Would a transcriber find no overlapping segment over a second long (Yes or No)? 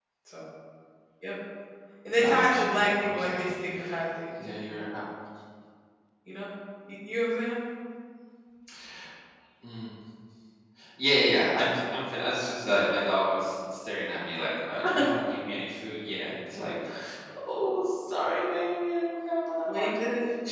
No